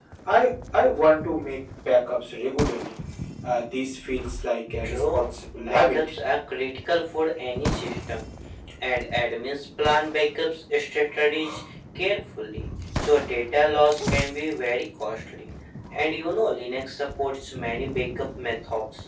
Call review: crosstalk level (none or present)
present